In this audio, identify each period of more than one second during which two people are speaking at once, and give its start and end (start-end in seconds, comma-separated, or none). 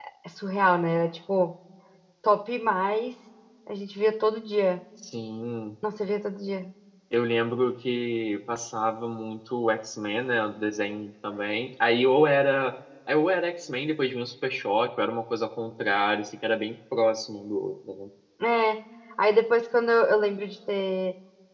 none